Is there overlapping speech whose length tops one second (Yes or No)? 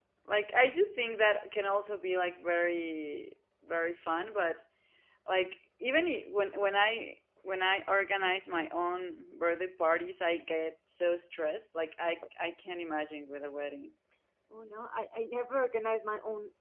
No